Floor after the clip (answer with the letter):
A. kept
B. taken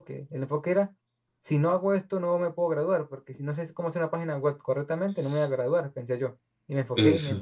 A